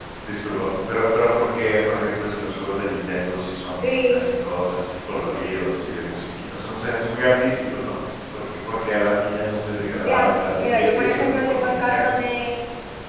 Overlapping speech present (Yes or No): Yes